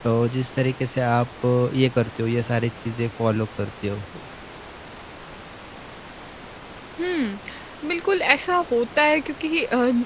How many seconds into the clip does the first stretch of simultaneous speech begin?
none

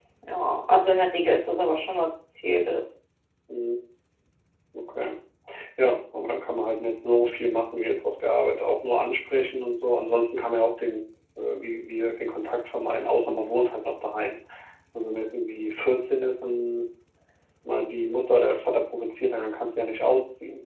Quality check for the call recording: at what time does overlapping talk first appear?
none

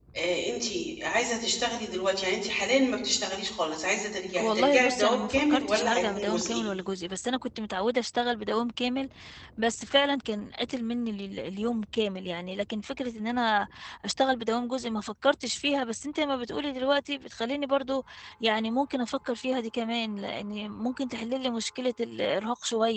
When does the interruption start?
4.4 s

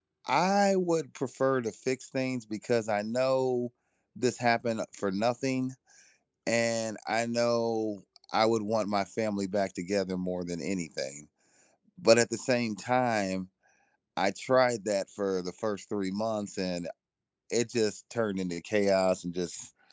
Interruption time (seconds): none

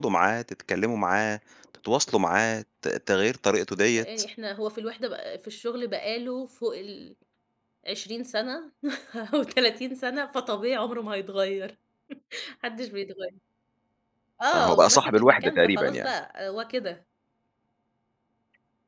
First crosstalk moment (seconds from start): 14.5 s

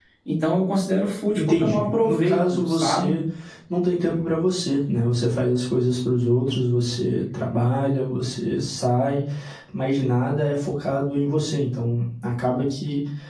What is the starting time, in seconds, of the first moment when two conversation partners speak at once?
1.4 s

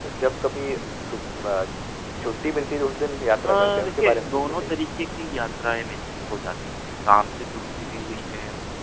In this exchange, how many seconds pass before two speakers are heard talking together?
3.4 s

